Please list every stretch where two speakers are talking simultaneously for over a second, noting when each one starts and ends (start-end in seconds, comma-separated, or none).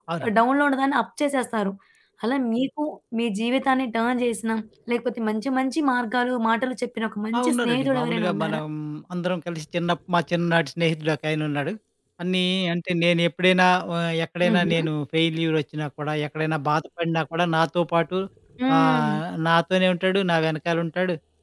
7.4-8.6